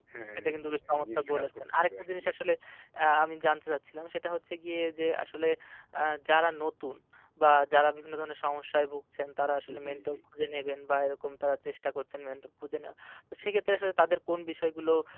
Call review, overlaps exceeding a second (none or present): present